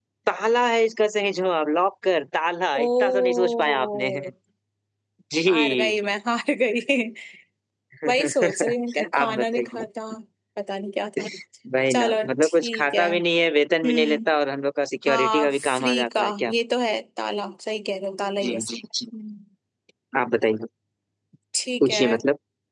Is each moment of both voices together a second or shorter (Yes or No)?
No